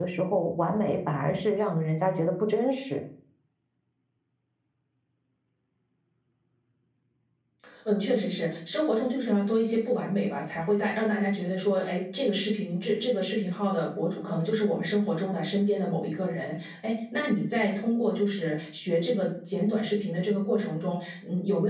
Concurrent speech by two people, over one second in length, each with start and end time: none

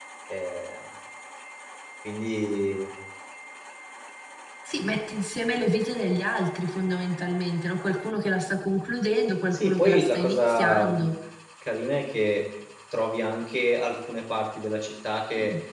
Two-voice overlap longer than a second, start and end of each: 9.5-11.0

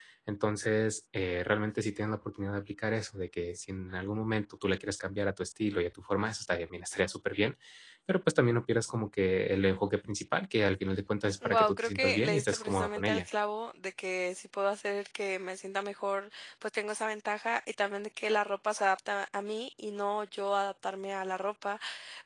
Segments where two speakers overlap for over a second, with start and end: 11.4-13.2

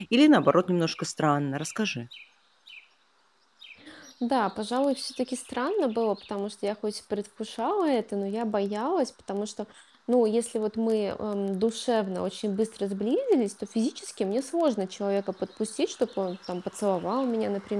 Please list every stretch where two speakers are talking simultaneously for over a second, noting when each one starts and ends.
none

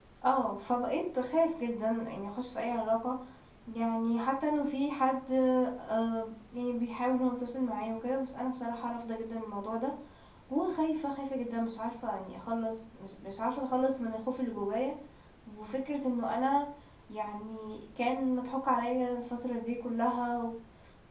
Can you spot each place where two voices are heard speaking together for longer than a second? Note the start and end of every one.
none

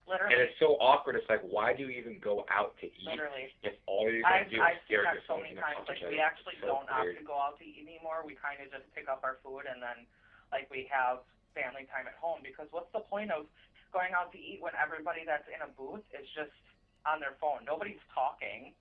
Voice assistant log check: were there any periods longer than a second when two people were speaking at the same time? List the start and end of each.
4.2-7.2

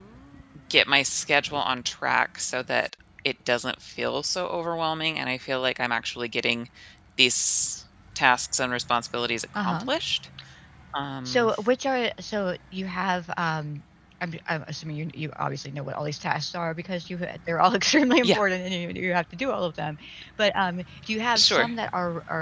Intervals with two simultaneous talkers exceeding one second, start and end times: none

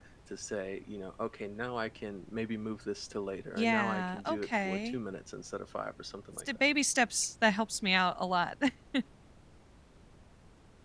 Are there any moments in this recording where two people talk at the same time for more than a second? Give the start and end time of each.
3.5-5.0

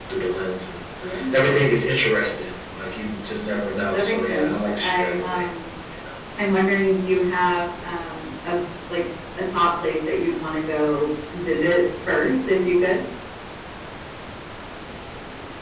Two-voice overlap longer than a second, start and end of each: 3.9-5.5

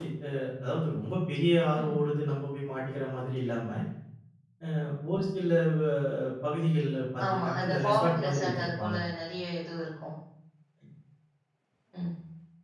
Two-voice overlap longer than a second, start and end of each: 7.2-8.9

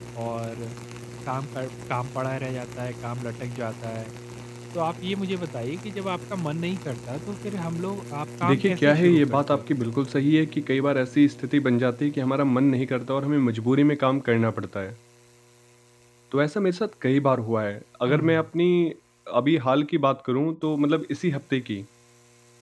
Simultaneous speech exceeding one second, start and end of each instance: 8.4-9.7

